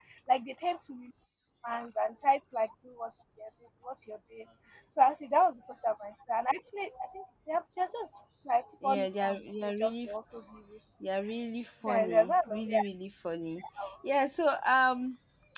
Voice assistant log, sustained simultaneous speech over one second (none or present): present